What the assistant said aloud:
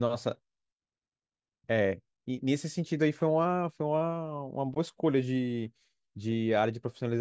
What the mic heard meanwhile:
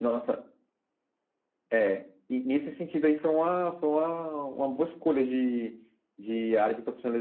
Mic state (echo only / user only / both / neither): echo only